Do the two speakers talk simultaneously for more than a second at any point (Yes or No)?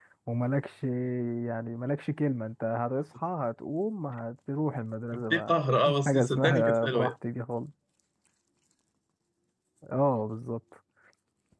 Yes